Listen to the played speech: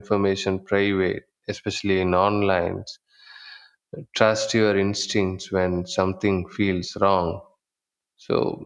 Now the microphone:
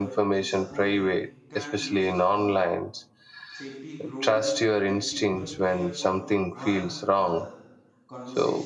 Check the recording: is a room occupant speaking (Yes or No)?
Yes